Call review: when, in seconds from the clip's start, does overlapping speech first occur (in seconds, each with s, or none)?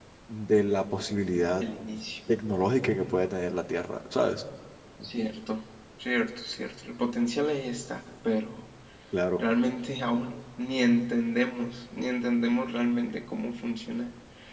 none